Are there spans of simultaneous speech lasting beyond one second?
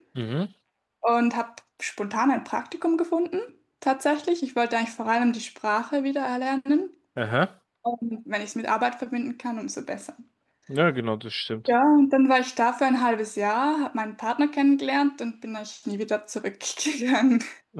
No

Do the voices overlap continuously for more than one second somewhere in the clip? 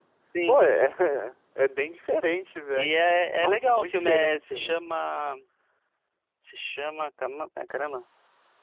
Yes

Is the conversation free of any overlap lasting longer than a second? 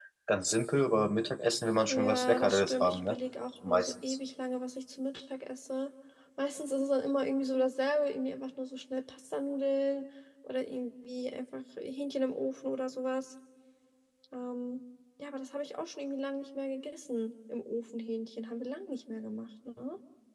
No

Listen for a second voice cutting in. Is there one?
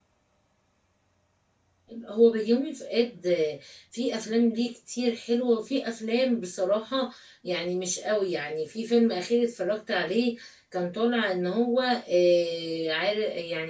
No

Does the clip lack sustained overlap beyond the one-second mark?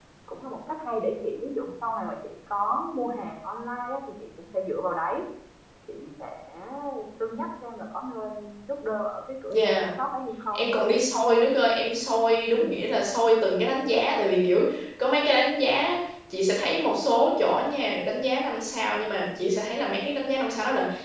Yes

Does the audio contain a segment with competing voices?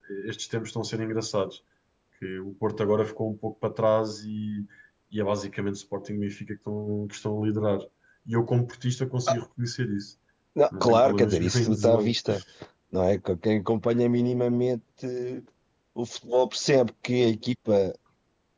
Yes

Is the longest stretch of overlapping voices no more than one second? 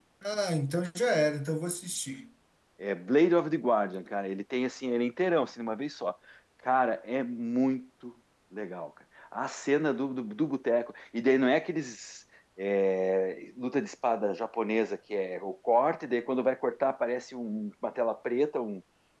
Yes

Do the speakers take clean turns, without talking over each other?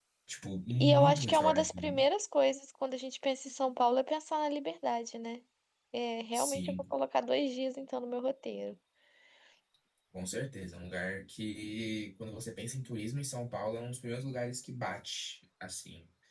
No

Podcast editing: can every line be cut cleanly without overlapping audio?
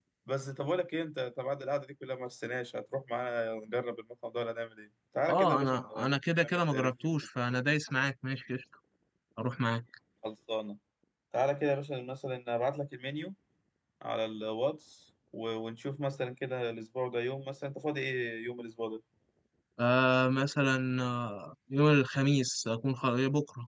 No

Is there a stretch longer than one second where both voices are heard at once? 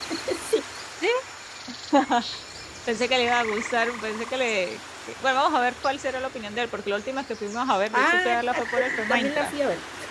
Yes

